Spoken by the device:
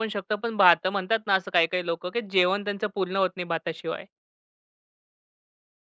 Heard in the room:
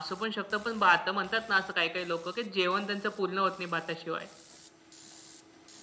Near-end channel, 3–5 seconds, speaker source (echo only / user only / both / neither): echo only